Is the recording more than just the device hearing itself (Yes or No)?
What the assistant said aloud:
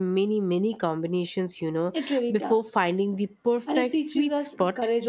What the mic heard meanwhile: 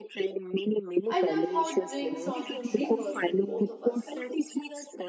Yes